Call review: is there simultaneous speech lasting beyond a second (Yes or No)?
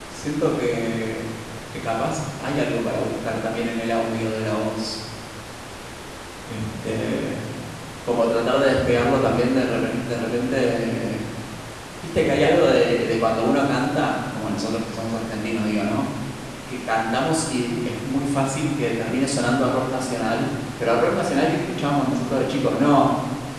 No